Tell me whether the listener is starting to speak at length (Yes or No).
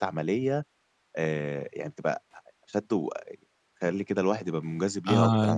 Yes